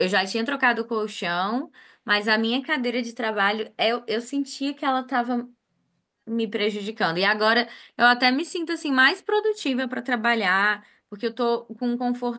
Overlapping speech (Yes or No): No